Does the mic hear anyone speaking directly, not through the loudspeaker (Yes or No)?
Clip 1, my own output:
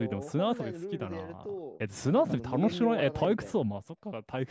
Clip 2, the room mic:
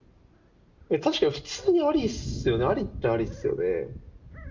Yes